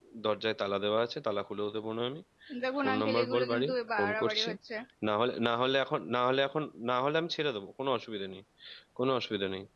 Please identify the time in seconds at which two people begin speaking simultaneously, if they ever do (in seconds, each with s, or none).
2.8 s